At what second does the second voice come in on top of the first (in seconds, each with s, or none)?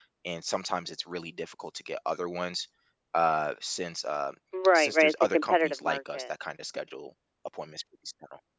4.8 s